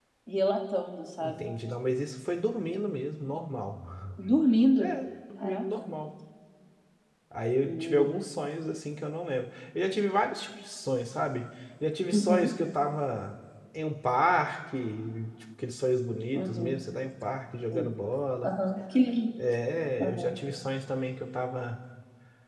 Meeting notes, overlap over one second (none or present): none